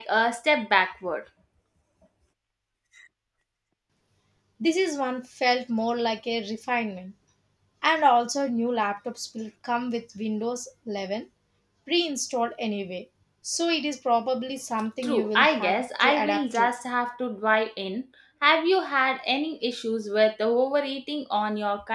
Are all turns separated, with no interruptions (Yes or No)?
No